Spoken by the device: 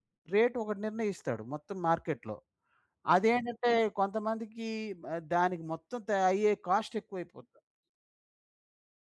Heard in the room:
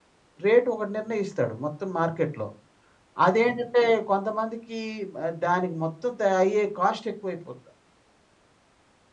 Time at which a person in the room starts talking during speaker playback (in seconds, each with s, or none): none